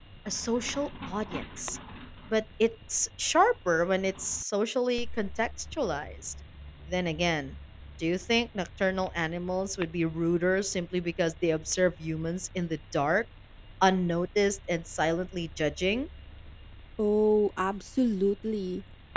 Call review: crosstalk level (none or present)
none